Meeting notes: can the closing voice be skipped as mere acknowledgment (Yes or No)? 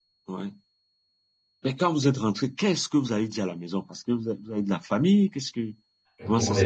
No